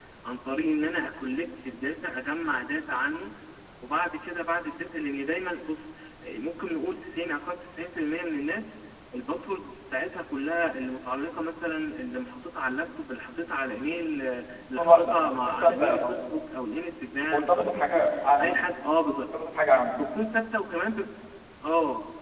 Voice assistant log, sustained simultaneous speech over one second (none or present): present